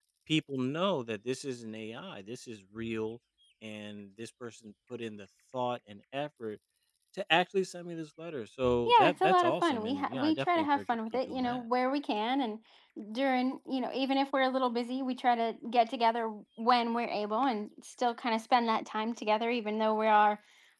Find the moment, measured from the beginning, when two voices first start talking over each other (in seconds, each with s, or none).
8.9 s